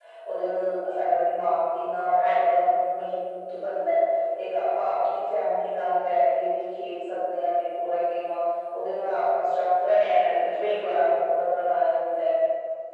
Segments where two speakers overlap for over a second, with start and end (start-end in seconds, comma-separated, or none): 9.9-11.1